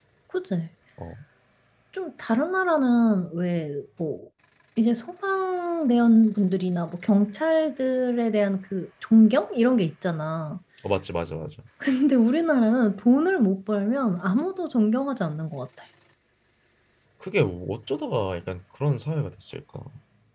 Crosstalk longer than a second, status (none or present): none